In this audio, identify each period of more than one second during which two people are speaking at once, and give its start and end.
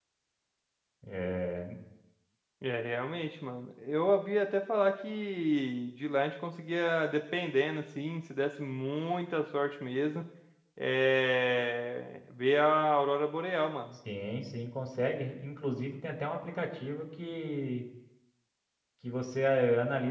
none

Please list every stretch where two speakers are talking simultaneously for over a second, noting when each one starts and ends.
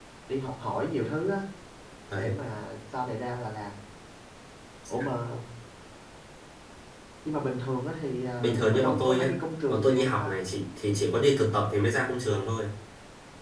8.4-10.3

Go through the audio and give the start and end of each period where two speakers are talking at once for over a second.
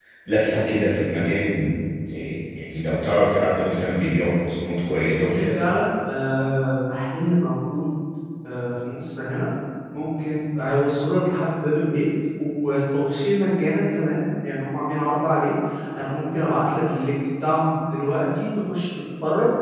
none

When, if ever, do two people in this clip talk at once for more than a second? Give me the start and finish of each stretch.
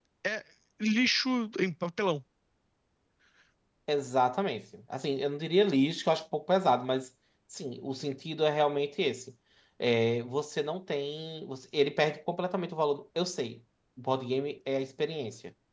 none

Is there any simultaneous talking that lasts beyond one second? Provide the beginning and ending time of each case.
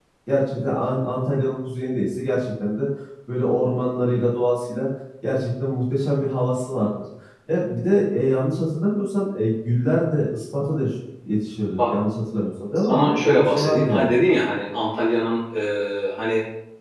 12.8-14.1

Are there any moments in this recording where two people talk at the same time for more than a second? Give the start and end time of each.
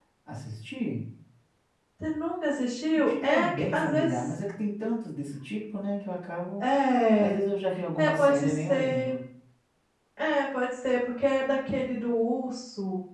3.0-4.3, 8.0-9.2

